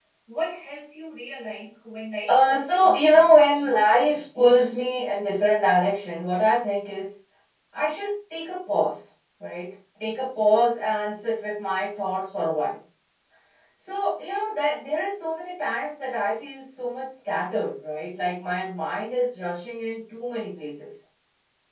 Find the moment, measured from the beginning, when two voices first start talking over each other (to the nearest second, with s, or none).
2 s